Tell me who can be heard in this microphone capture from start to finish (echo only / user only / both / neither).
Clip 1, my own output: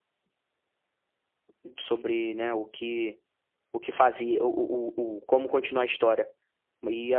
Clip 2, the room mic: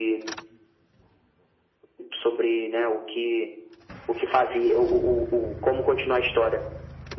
echo only